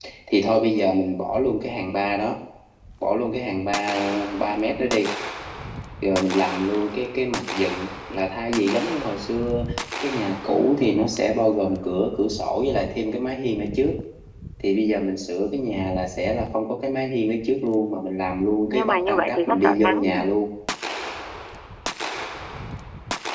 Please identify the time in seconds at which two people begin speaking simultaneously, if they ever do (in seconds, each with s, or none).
18.7 s